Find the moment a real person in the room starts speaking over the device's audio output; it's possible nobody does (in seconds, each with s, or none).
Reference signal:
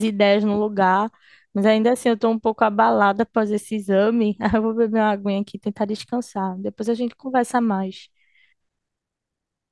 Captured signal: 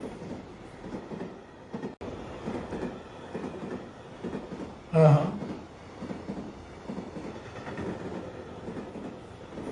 4.9 s